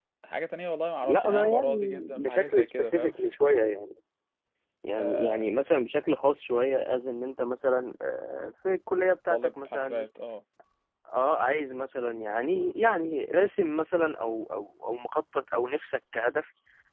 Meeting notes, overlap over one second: present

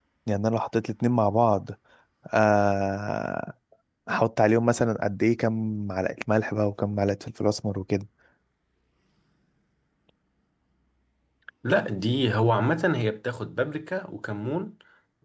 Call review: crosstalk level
none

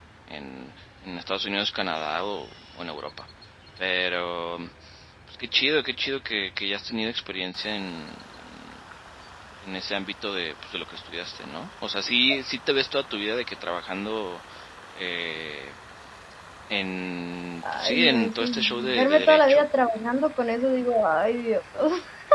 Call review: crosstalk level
present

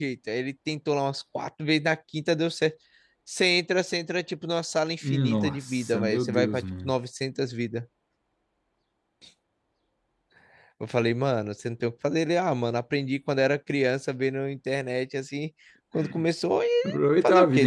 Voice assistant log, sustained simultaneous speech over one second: present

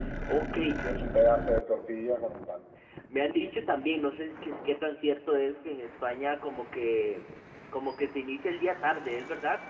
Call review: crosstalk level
none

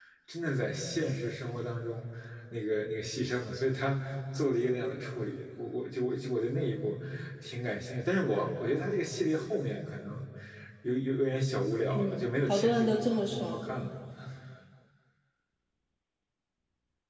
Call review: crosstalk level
present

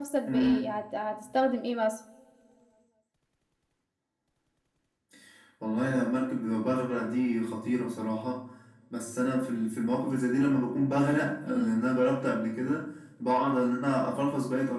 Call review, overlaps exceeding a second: none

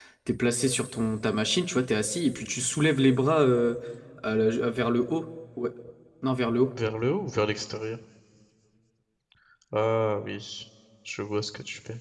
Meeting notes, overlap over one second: none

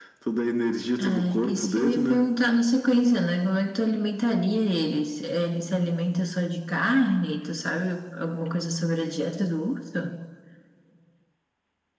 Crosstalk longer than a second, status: present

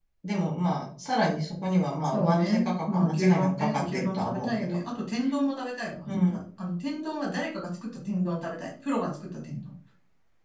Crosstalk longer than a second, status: present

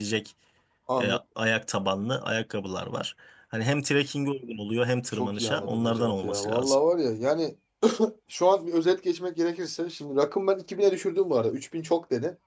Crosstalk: present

